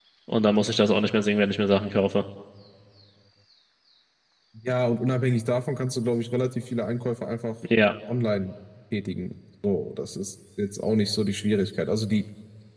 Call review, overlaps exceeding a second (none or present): none